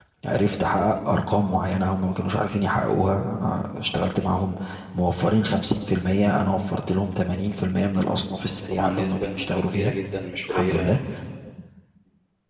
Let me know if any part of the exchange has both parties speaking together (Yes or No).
Yes